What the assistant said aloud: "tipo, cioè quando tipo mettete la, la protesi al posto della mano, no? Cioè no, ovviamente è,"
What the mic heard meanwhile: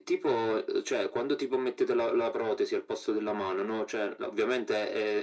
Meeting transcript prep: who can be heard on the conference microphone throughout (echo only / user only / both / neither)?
echo only